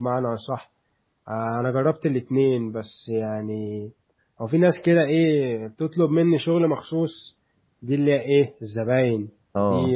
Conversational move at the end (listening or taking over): listening